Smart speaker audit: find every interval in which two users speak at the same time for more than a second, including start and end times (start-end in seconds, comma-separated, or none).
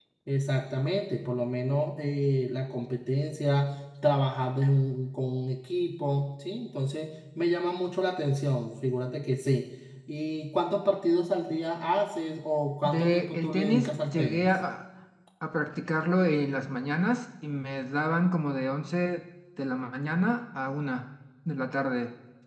12.8-14.5